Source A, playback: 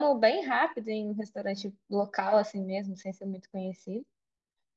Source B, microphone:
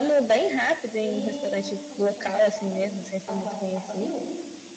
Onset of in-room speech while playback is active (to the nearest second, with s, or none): 1 s